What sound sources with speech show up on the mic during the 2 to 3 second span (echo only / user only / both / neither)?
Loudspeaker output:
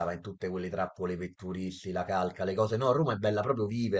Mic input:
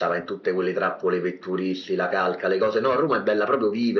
echo only